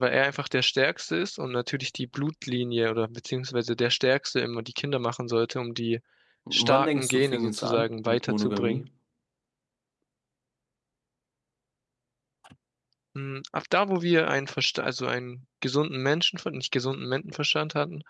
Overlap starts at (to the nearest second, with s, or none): 7 s